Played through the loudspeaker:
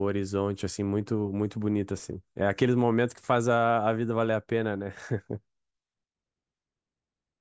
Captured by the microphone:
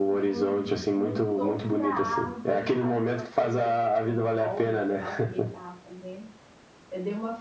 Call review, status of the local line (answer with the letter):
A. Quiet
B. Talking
B